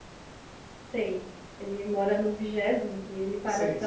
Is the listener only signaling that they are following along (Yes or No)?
No